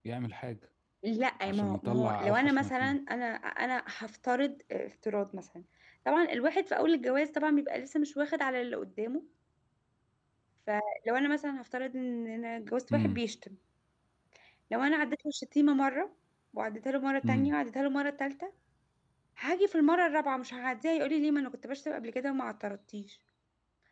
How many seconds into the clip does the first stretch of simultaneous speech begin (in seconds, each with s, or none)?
1.5 s